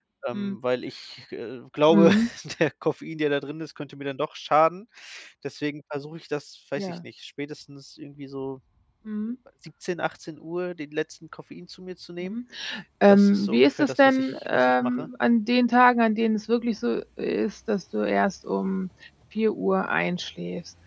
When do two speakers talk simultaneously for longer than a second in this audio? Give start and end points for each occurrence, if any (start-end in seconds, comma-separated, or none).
13.1-15.1